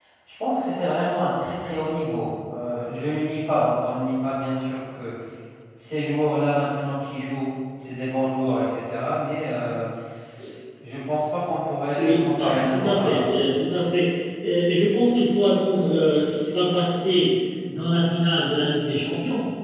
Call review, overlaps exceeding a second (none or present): present